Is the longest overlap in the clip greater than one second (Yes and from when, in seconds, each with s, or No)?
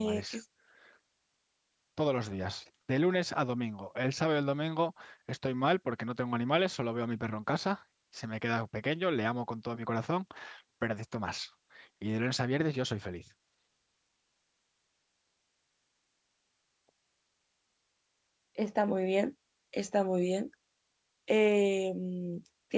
No